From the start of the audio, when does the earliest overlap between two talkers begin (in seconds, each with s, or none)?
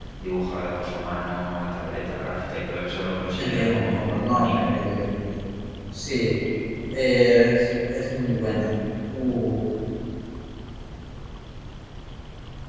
3.4 s